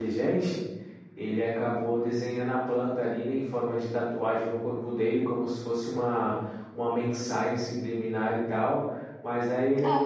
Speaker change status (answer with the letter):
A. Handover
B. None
B